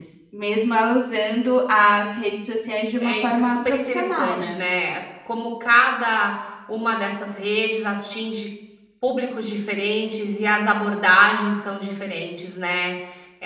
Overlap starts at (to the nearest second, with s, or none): 3 s